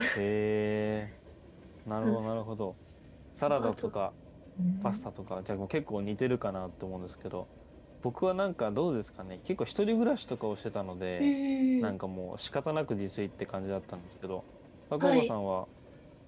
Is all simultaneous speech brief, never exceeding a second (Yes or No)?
Yes